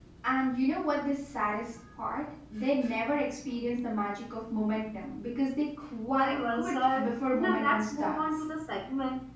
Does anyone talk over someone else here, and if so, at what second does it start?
6 s

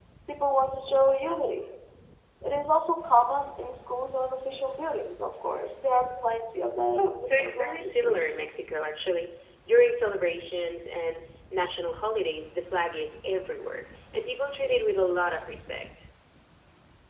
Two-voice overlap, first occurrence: 7 s

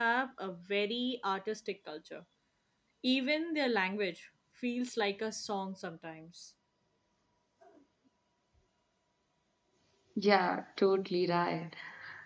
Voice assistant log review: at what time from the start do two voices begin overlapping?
none

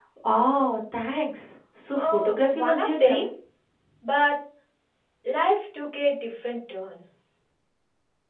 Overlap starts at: 2 s

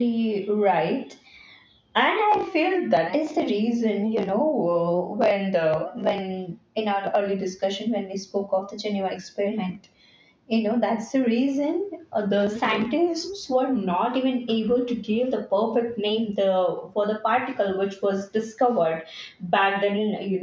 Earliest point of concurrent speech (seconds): none

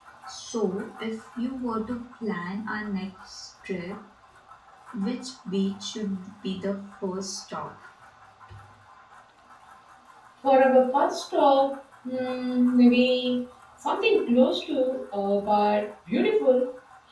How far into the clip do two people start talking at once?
none

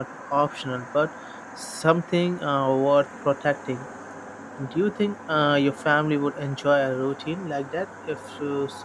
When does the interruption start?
none

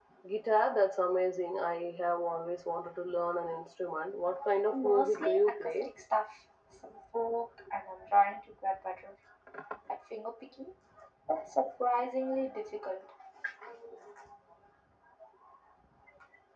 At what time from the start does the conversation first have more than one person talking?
5 s

